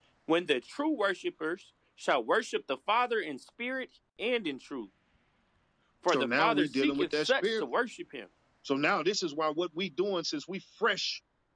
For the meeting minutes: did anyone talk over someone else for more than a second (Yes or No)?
Yes